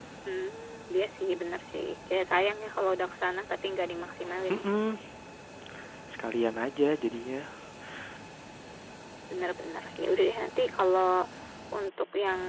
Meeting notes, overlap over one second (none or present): none